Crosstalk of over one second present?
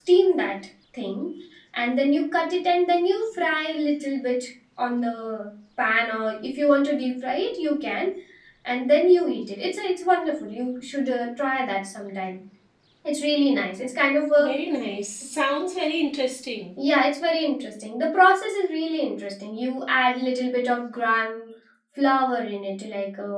No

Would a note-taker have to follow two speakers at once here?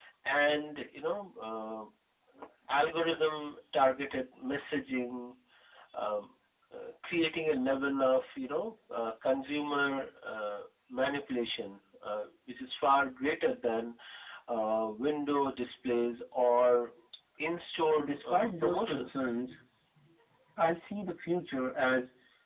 Yes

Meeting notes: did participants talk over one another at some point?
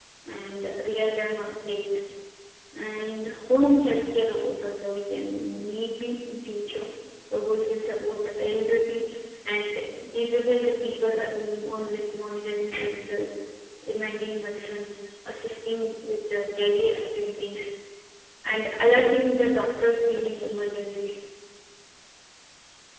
No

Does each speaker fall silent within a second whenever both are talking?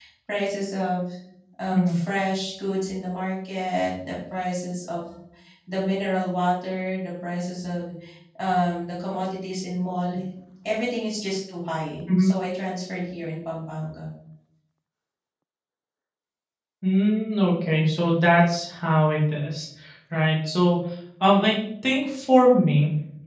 Yes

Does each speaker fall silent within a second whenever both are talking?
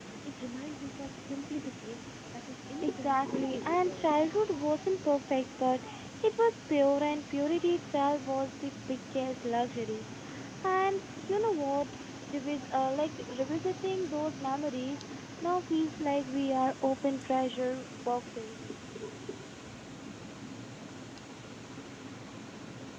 No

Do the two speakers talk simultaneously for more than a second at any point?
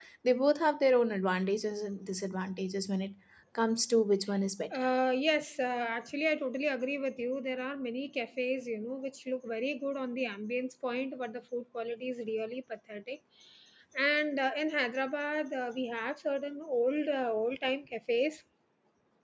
No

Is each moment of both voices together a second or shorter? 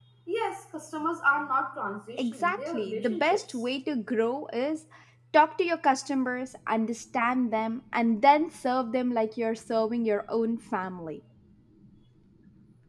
No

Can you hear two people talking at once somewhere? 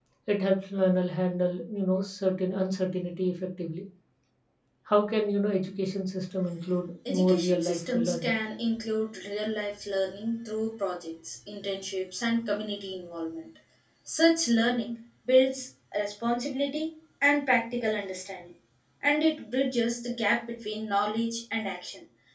Yes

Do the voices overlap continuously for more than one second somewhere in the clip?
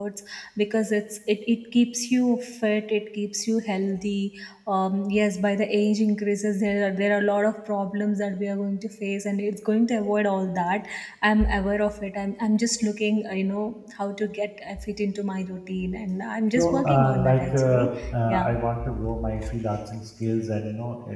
Yes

